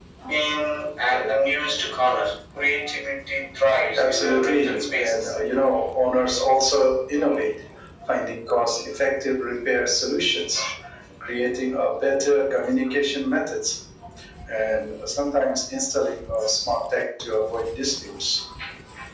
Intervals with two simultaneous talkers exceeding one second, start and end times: 4.0-5.3

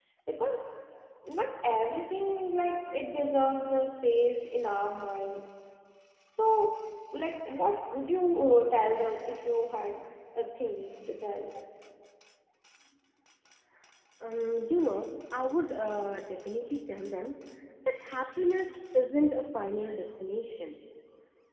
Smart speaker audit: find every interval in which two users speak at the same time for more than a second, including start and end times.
none

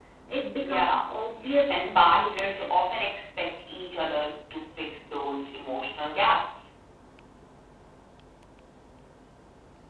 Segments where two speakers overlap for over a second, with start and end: 1.7-3.0

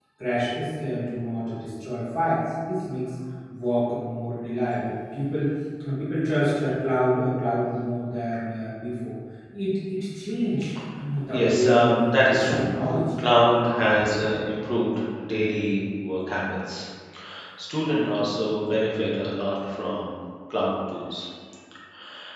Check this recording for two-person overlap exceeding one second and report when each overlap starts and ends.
11.3-12.7

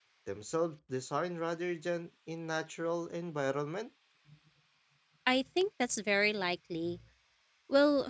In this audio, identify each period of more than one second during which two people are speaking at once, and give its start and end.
none

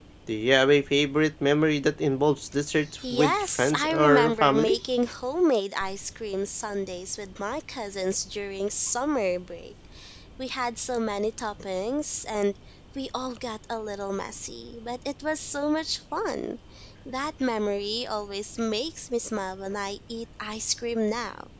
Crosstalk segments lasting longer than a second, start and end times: 3.1-4.8

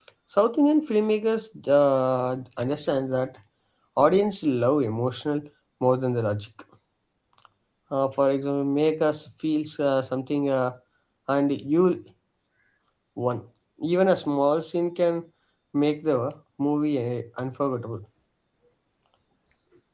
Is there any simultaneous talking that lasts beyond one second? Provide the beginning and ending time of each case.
none

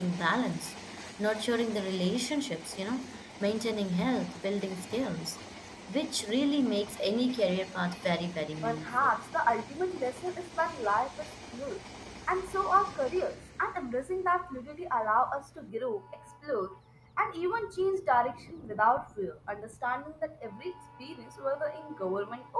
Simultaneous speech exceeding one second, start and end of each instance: none

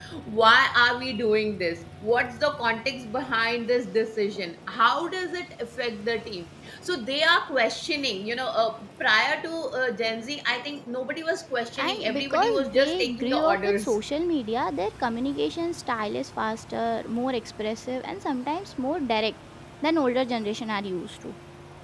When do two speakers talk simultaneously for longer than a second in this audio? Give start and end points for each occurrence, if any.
11.8-13.9

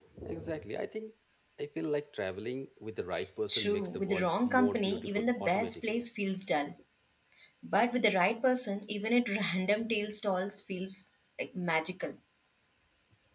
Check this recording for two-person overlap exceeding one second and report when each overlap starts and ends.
3.5-6.0

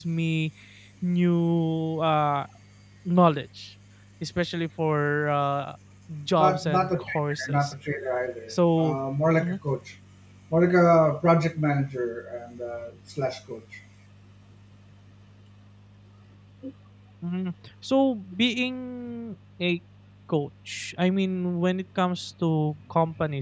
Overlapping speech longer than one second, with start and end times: 6.4-7.7

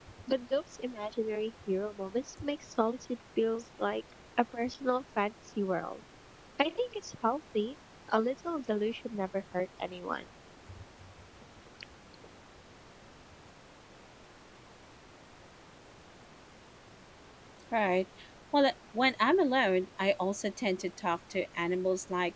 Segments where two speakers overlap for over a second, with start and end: none

